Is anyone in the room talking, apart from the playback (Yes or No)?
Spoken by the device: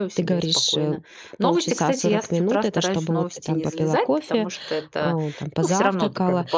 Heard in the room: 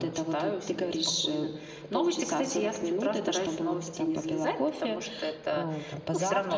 No